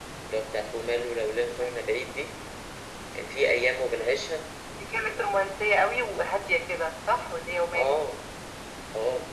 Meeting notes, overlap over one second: none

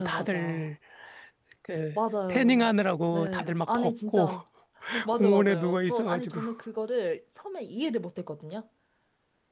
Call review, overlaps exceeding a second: present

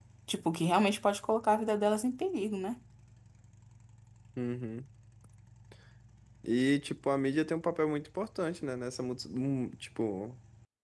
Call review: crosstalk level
none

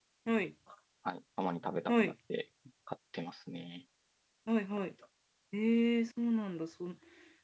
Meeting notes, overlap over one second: none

